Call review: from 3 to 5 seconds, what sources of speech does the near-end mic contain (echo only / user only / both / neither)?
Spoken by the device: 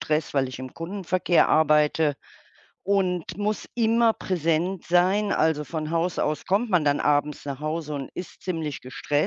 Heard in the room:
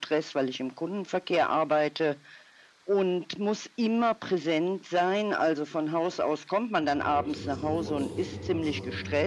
echo only